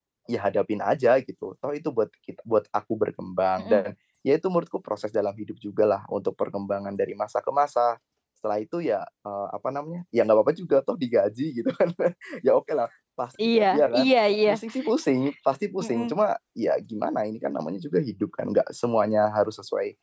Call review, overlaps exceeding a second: none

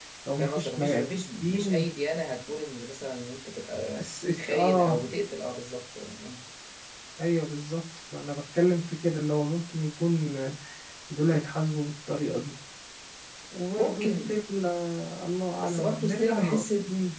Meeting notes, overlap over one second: present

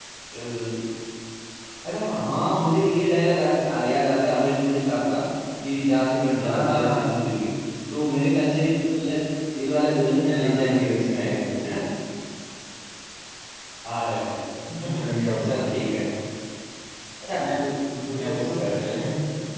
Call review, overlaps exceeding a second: present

